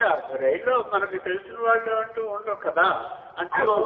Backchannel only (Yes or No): No